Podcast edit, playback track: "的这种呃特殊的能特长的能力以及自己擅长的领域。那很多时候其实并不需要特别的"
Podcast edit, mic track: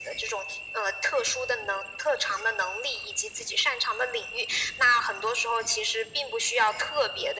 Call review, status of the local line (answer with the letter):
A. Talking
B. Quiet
B